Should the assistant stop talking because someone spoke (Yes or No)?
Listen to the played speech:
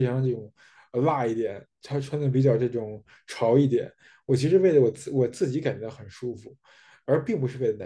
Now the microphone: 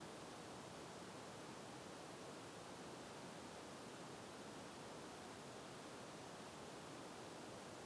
No